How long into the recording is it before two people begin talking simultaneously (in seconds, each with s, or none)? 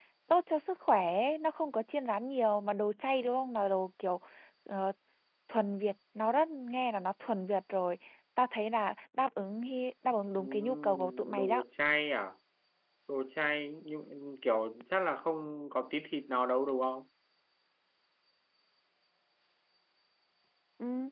10.4 s